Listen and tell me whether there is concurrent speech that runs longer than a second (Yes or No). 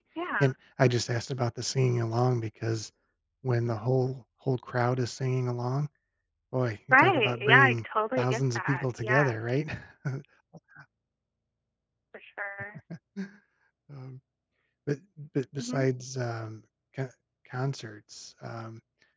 Yes